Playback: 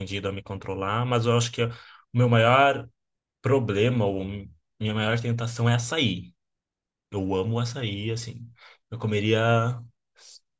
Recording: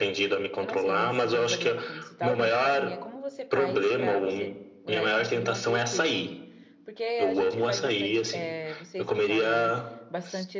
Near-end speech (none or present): present